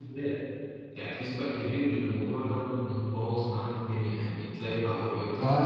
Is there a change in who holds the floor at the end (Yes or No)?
Yes